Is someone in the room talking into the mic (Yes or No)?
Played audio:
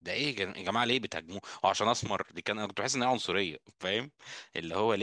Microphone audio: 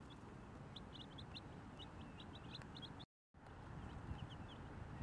No